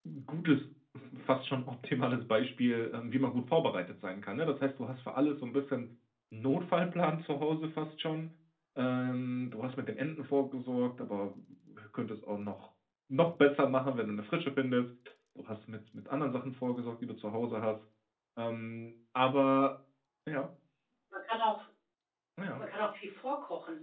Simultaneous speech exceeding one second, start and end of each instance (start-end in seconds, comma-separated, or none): none